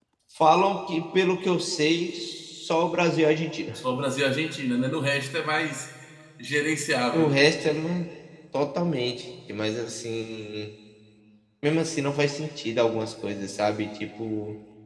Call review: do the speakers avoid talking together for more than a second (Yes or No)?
Yes